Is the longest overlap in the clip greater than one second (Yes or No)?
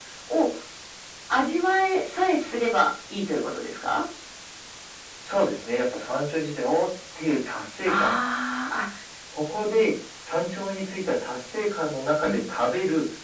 No